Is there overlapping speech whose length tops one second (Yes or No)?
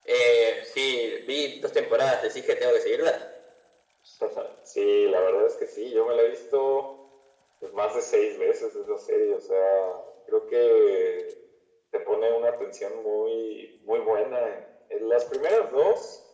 No